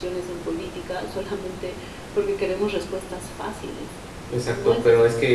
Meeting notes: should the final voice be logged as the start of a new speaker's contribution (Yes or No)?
Yes